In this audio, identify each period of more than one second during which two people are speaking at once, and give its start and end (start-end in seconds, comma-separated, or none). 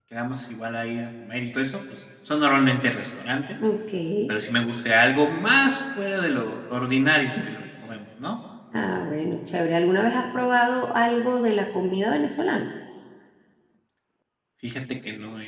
none